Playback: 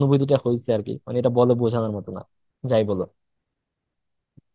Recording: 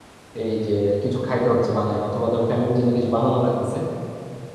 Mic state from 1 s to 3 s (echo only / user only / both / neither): user only